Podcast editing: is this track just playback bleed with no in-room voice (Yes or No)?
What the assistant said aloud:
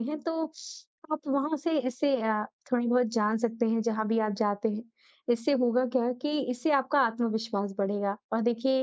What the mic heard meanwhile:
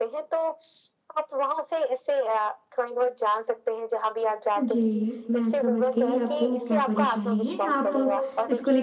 No